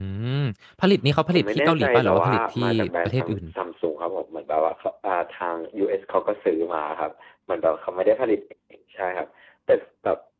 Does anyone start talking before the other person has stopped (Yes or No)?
Yes